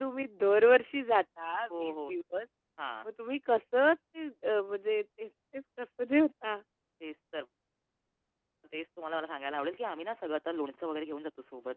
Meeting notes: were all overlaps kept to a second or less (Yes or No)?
Yes